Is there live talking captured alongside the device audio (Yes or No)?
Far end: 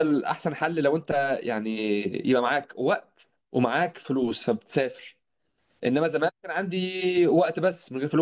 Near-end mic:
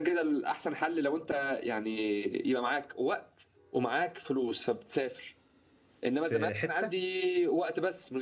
Yes